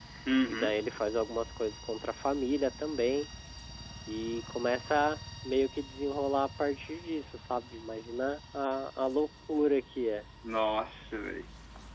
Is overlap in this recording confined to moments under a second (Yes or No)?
Yes